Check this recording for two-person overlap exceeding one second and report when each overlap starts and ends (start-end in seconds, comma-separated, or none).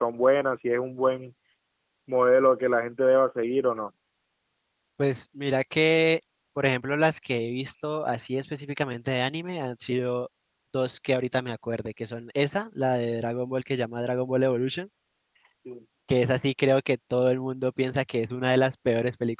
none